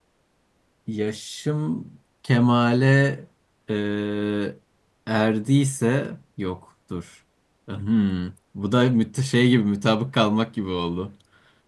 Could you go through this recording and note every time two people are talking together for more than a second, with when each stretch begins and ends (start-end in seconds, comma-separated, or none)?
none